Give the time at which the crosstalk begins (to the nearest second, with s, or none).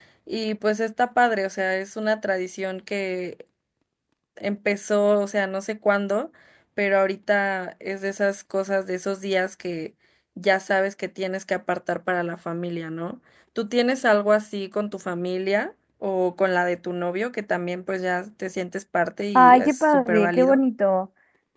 19 s